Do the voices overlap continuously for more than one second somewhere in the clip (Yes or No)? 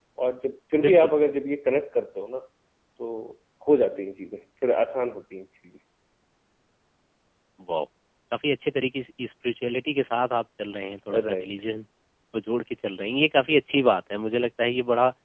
No